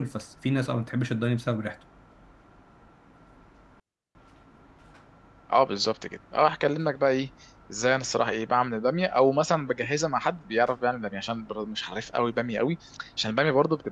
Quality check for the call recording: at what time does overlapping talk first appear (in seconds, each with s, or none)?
none